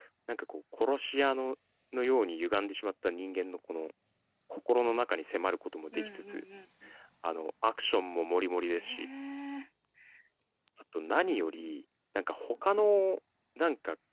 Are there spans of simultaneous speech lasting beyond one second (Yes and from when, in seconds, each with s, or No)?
No